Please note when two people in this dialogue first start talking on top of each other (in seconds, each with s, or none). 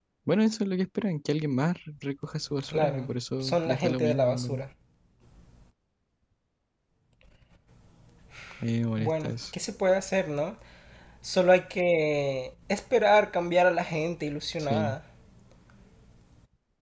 2.7 s